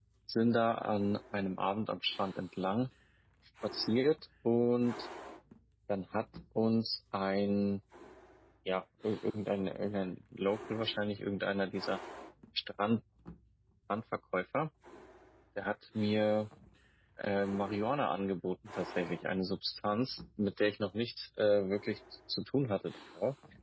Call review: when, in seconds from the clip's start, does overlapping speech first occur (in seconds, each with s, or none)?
none